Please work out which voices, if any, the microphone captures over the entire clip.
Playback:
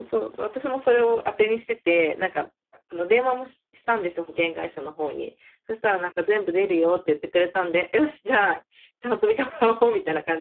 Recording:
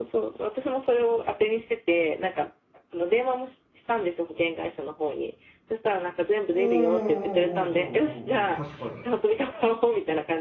both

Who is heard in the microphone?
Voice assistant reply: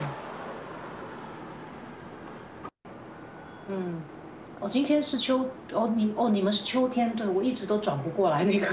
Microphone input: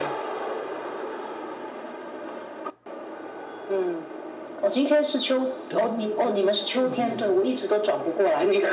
both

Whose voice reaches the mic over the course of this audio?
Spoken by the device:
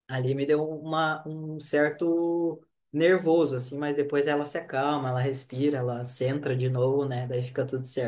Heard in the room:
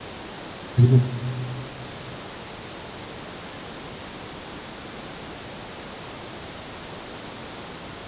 user only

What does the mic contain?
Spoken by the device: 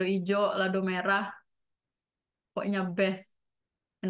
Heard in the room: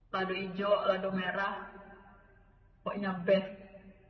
echo only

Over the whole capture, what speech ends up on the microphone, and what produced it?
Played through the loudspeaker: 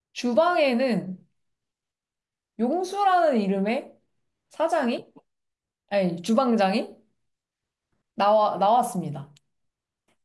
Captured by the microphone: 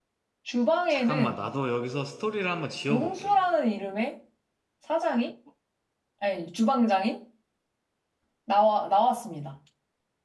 both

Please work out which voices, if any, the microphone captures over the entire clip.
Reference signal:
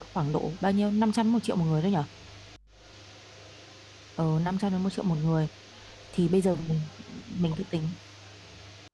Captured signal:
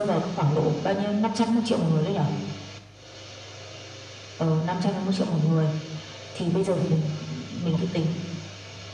echo only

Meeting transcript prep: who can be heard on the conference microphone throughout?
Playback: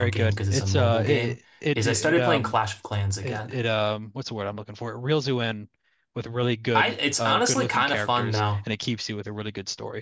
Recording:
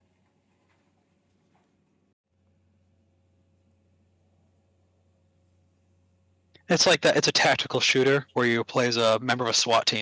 user only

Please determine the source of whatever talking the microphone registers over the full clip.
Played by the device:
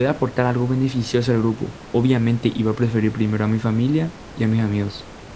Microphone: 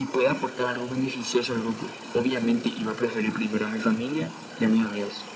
echo only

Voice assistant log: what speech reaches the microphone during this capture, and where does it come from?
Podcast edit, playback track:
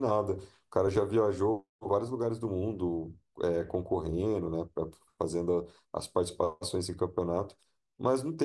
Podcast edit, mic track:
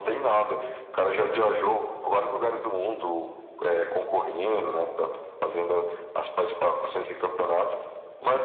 echo only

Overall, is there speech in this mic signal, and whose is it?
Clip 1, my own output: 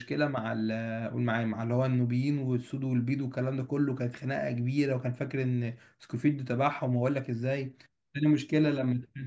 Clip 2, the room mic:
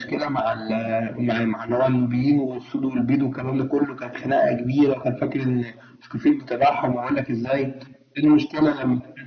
echo only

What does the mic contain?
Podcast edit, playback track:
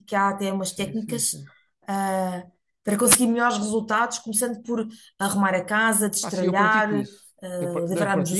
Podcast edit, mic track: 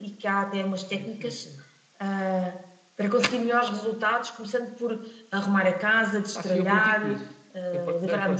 echo only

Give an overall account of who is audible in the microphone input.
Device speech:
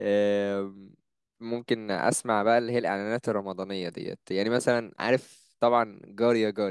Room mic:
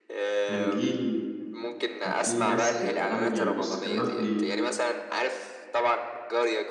both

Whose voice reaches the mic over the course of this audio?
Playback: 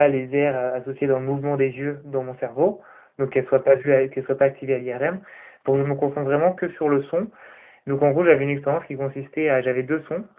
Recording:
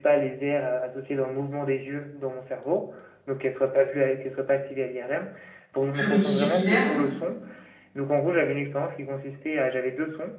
both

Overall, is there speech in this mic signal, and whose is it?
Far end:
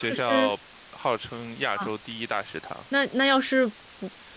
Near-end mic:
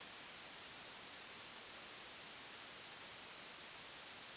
neither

